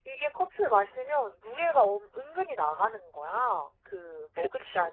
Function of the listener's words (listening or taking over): listening